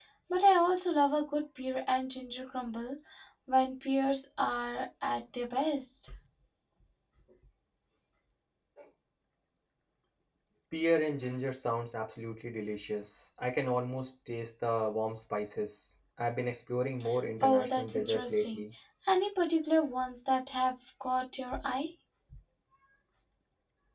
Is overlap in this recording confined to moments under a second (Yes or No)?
No